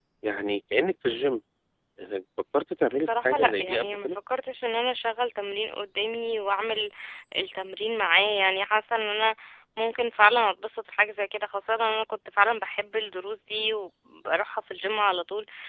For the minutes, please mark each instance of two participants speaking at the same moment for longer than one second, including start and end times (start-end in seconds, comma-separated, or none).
2.9-4.2